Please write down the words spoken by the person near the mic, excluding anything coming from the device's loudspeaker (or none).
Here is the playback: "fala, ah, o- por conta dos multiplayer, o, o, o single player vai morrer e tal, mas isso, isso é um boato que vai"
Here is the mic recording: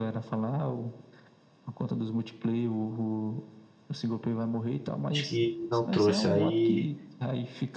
Acho que não trouxe. Aí